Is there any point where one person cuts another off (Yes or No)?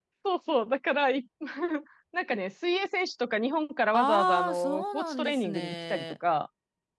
Yes